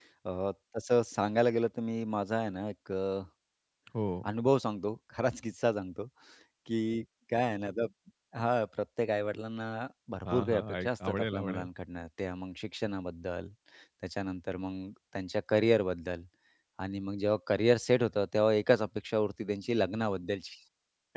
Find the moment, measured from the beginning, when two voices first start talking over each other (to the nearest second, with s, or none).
10 s